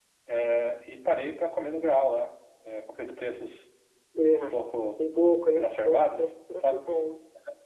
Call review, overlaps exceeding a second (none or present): present